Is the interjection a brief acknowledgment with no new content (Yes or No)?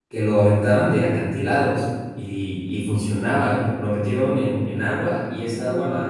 Yes